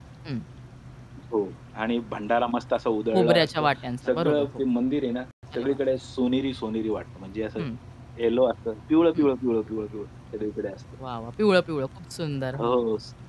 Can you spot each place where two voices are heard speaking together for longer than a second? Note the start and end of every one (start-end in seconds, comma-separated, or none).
none